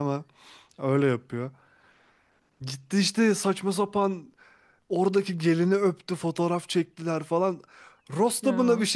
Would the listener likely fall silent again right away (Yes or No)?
Yes